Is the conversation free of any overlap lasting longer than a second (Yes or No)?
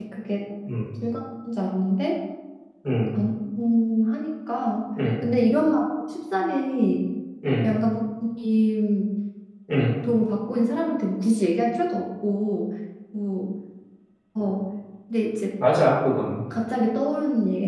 Yes